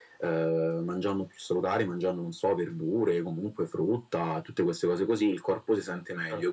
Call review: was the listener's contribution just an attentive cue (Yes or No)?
Yes